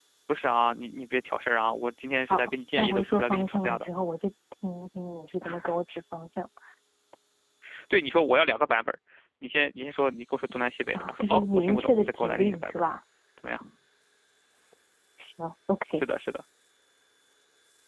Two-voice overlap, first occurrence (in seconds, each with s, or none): 2.3 s